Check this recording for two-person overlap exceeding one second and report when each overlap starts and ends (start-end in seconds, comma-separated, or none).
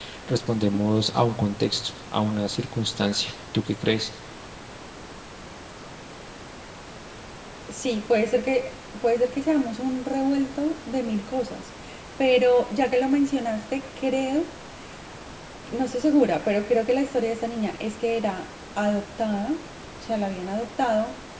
none